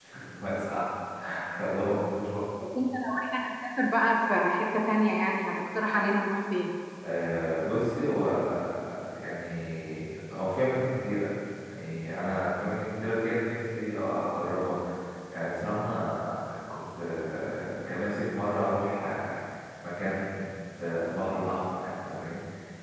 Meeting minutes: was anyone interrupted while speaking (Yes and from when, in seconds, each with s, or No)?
No